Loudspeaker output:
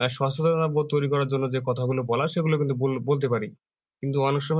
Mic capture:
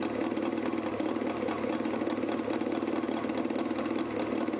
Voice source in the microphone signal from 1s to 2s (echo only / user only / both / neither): neither